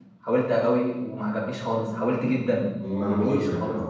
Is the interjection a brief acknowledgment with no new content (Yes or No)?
No